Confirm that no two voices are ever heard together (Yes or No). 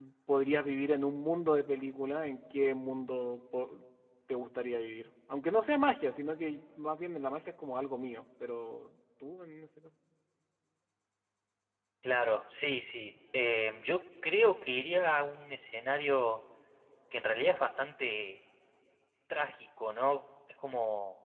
Yes